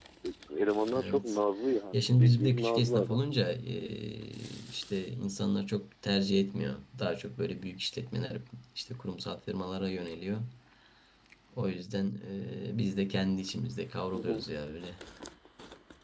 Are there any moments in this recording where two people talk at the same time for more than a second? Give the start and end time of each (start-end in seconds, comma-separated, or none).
1.9-3.2